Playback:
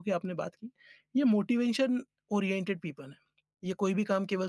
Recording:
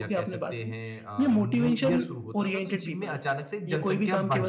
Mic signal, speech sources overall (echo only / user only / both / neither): both